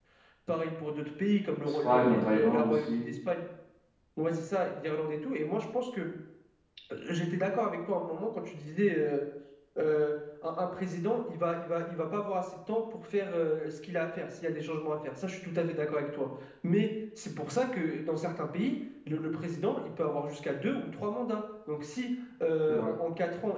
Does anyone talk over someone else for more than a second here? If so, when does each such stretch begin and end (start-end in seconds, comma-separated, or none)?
1.6-3.1